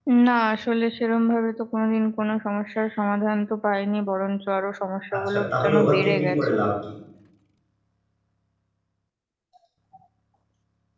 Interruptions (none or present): present